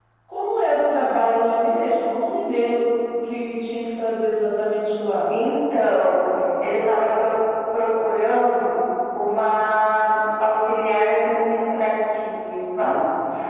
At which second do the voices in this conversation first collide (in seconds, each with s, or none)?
none